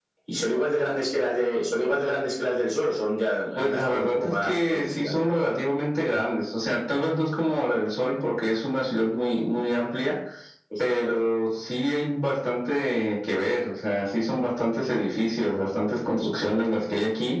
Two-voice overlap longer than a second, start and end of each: 3.5-5.1

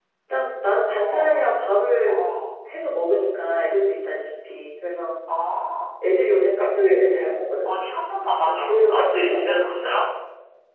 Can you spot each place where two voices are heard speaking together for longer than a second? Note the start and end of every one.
8.4-9.9

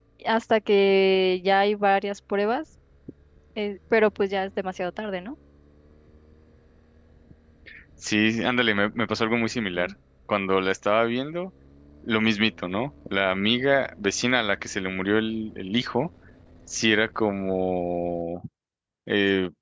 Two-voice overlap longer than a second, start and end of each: none

